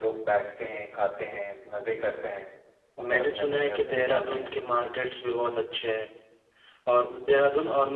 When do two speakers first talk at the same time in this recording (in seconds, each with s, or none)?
3.1 s